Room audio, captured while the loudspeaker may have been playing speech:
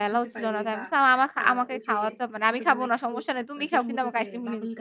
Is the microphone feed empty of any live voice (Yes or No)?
No